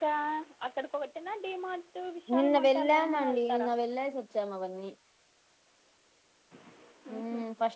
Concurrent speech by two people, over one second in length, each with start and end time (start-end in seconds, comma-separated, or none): 2.4-3.7